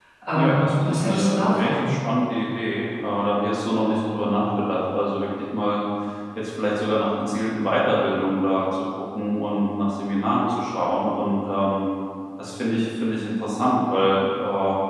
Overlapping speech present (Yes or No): Yes